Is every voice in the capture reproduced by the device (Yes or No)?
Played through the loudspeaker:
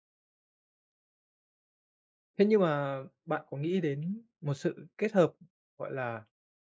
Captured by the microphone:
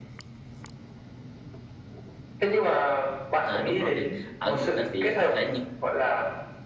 No